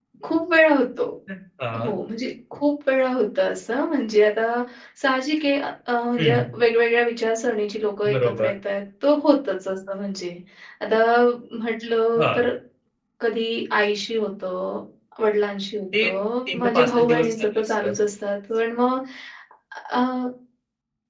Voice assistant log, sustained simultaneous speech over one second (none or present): present